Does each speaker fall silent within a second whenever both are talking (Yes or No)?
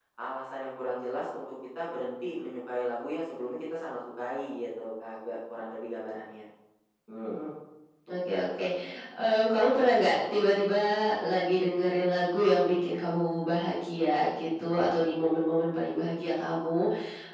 Yes